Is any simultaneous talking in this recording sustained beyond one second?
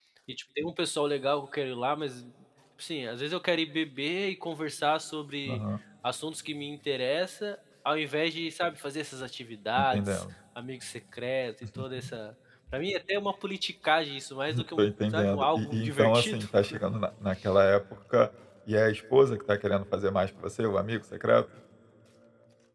Yes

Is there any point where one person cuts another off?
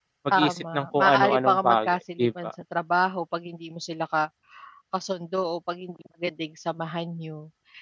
Yes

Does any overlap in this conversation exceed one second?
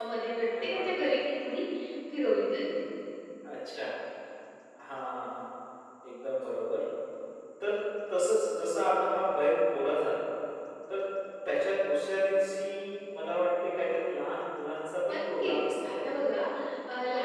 Yes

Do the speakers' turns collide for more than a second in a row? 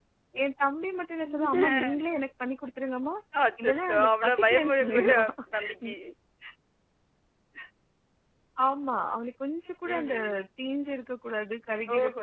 Yes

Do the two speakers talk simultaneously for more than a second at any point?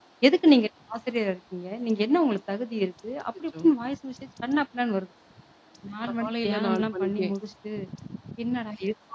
Yes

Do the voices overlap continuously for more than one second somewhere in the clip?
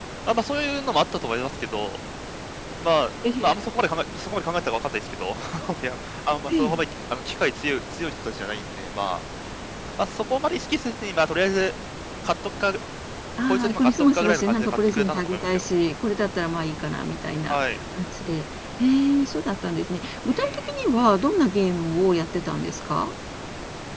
Yes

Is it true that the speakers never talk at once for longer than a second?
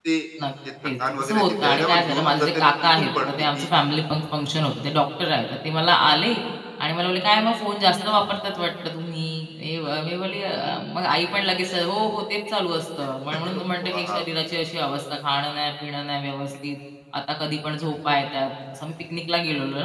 No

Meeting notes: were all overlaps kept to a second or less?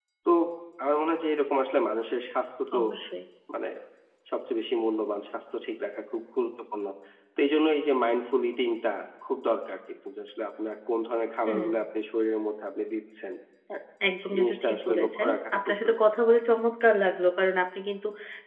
No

